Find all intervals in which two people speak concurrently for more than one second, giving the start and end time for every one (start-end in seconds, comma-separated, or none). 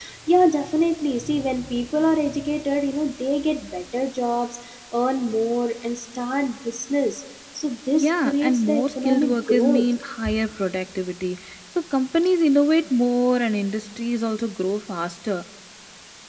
8.0-9.8